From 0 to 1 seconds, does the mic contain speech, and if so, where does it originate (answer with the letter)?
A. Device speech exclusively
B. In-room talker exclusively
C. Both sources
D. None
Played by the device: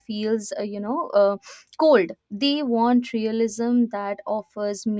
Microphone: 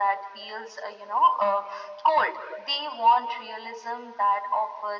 A